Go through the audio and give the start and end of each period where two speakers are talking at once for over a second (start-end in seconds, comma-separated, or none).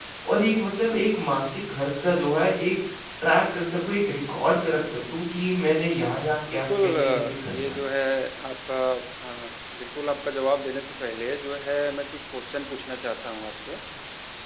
6.5-7.8